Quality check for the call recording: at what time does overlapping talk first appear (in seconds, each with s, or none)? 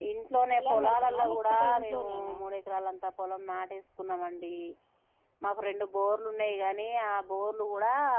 0.5 s